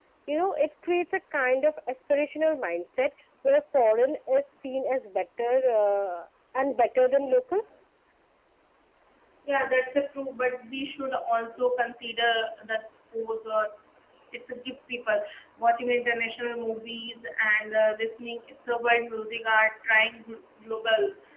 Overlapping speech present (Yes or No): No